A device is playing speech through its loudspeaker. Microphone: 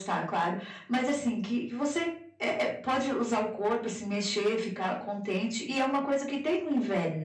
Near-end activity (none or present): none